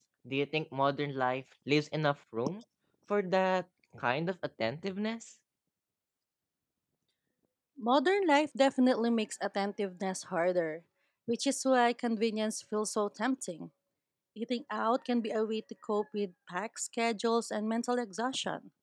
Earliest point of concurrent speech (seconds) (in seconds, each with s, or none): none